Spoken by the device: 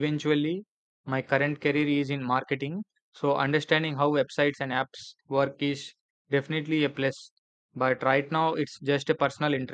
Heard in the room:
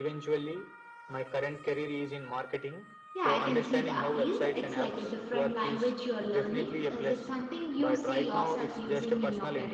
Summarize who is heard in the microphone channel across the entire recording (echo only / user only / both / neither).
both